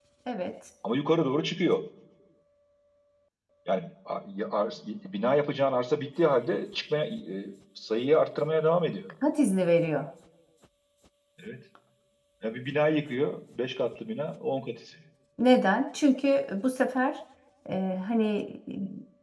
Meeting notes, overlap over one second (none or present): none